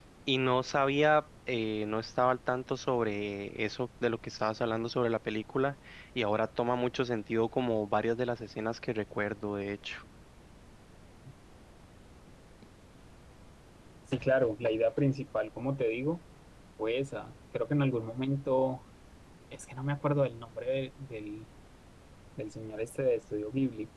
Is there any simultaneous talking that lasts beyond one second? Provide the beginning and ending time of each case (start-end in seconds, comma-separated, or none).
none